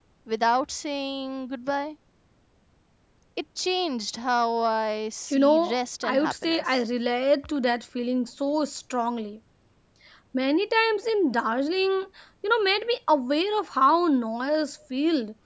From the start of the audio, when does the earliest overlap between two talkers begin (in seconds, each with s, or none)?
5.3 s